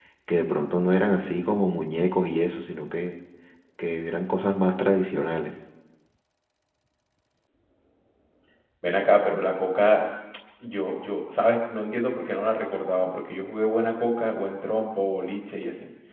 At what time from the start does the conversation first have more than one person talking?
none

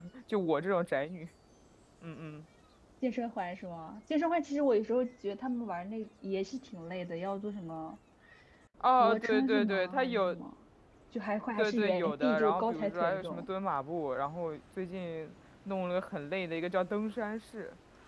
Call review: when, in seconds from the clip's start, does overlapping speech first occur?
9.0 s

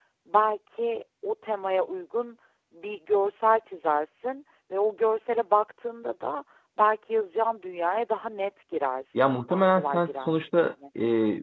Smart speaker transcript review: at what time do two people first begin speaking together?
9.2 s

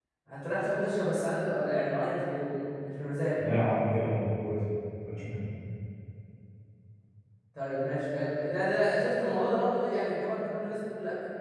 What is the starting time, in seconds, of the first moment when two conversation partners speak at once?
none

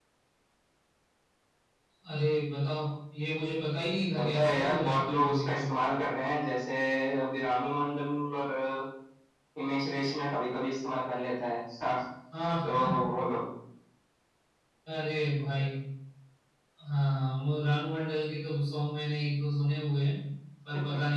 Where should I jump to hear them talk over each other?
4.2 s

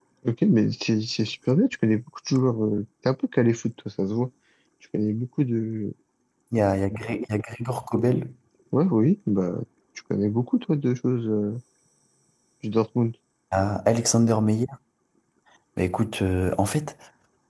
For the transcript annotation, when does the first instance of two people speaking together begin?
none

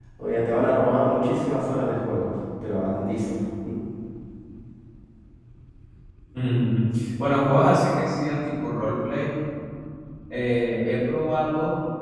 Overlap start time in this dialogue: none

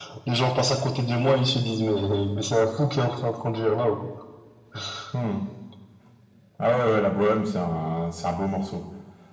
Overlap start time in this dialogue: none

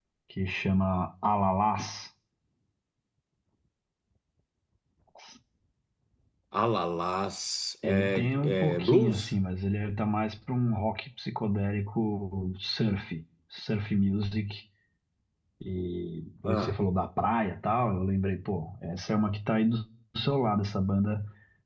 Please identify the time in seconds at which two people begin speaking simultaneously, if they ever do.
7.8 s

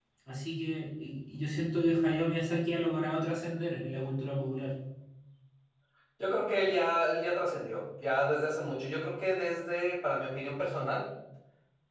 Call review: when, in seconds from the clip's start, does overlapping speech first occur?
none

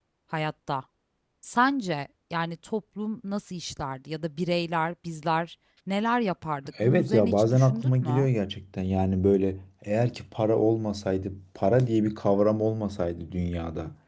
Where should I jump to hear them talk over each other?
6.8 s

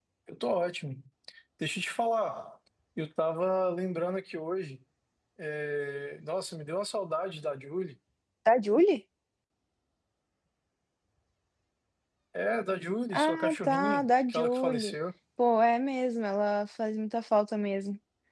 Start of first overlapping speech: 13.1 s

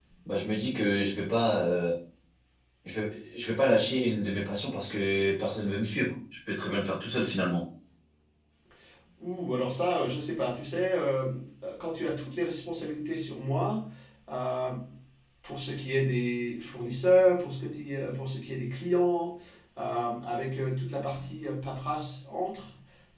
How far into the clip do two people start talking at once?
none

